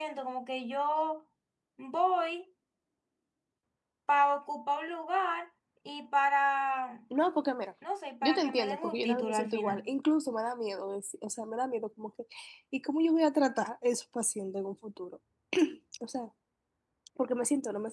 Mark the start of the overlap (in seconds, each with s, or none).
8.2 s